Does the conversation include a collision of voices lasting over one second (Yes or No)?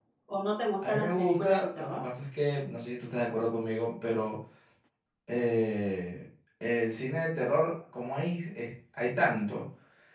Yes